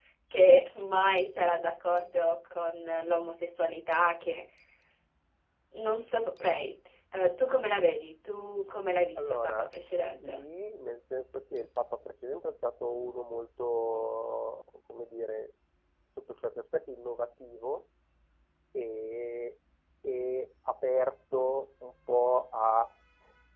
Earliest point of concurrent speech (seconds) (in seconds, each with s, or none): 9.2 s